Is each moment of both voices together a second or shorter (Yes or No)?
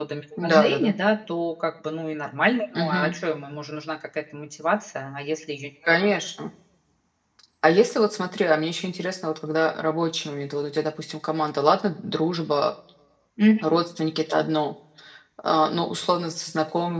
Yes